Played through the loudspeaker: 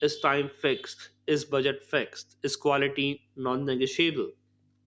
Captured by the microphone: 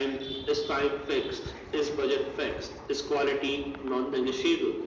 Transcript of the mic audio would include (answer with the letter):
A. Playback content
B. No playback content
A